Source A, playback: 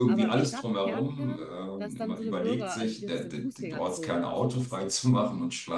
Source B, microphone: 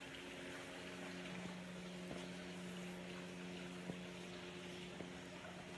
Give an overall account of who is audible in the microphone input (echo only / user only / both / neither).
neither